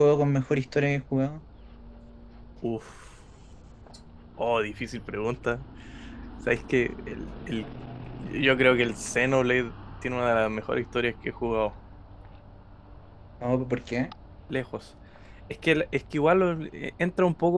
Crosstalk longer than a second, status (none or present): none